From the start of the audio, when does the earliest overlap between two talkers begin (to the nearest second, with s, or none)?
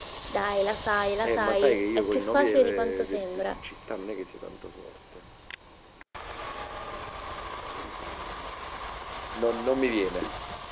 1 s